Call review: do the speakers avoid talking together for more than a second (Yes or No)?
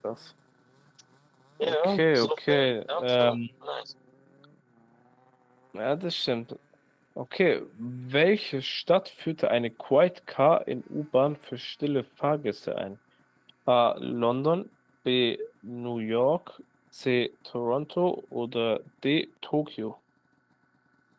No